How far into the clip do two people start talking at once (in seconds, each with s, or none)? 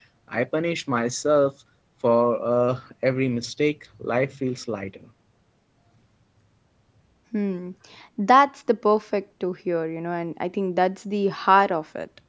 none